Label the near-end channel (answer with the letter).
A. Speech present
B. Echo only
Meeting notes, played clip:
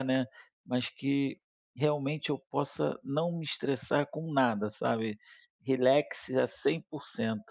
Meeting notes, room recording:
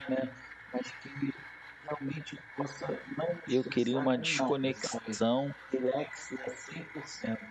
A